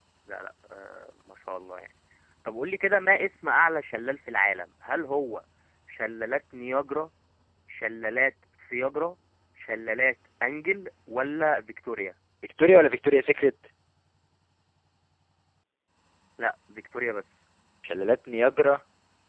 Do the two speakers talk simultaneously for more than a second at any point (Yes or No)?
No